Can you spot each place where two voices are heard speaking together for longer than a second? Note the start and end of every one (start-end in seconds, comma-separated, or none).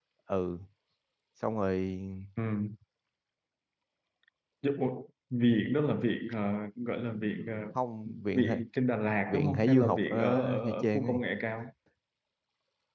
9.3-11.2